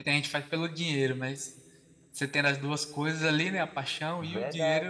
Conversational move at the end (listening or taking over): taking over